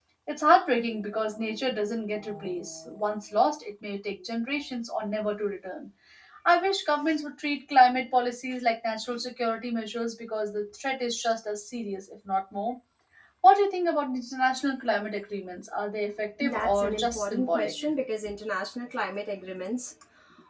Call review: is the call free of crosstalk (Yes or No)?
No